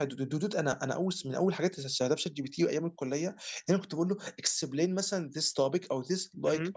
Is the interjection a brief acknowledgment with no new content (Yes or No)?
Yes